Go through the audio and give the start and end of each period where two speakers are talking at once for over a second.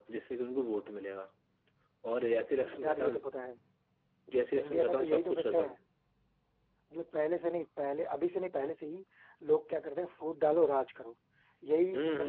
4.6-5.8

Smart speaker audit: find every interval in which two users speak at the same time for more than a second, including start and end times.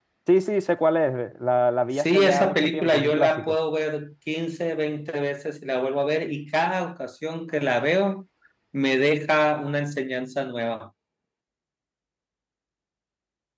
1.9-3.6

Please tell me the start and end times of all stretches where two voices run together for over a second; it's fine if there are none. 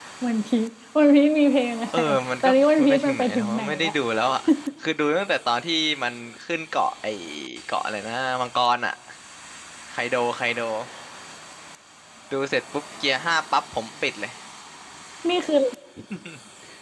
2.4-3.9

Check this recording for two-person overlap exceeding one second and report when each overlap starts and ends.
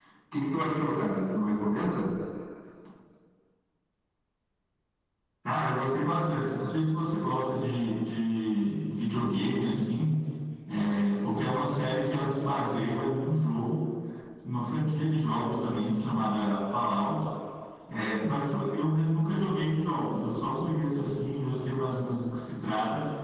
none

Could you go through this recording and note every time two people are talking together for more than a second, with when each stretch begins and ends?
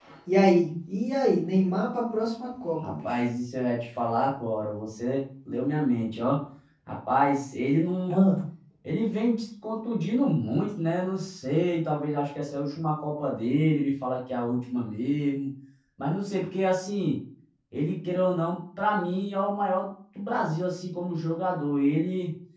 none

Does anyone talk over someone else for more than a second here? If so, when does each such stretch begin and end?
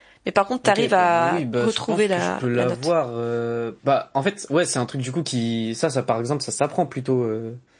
0.7-2.8

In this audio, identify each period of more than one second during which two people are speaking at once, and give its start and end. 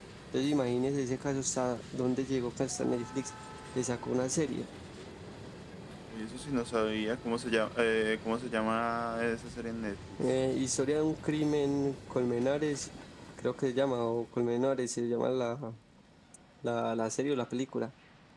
none

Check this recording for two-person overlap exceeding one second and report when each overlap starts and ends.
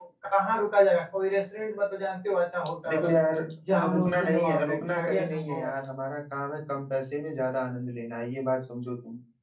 3.9-5.6

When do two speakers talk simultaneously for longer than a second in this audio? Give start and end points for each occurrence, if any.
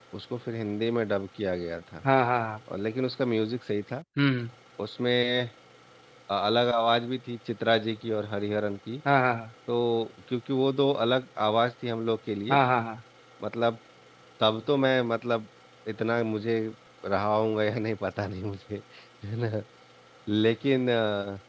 none

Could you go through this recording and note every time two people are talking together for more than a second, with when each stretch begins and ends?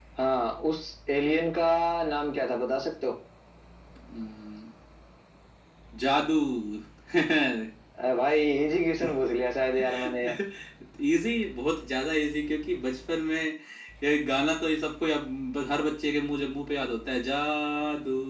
none

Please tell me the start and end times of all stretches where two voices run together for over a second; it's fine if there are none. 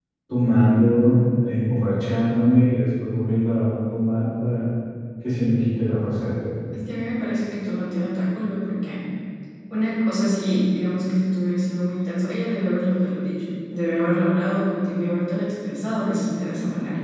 none

